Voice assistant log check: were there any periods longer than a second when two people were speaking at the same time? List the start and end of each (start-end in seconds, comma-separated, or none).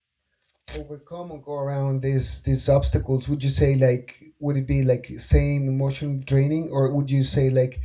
none